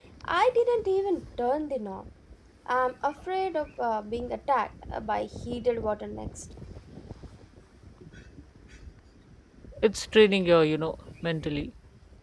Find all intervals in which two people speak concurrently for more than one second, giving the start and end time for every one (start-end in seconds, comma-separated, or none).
none